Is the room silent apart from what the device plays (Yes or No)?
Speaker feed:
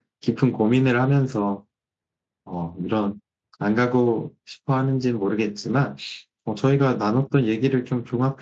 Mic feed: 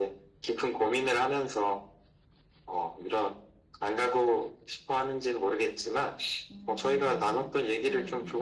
No